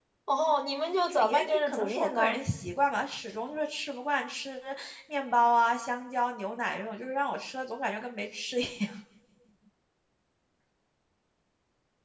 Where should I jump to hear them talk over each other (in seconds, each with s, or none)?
1.1 s